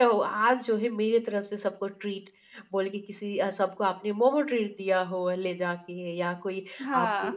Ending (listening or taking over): listening